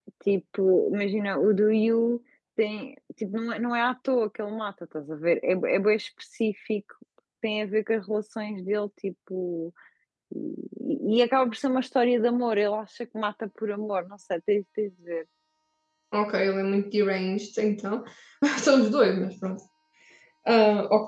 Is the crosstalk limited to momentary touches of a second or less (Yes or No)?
Yes